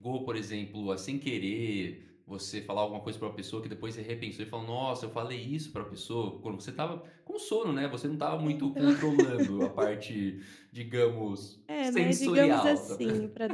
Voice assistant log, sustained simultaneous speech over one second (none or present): present